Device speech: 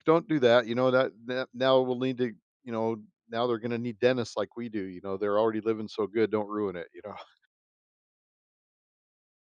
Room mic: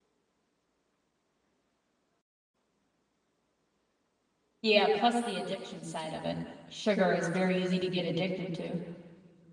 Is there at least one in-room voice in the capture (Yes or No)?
Yes